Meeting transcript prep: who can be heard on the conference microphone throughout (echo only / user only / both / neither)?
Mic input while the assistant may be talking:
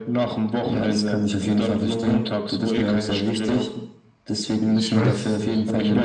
both